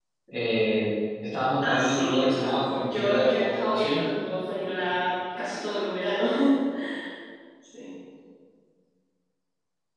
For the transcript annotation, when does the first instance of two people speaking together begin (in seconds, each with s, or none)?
1.6 s